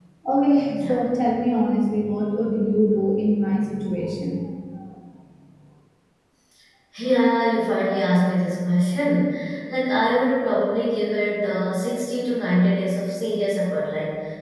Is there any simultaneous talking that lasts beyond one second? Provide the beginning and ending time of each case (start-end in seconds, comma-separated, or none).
none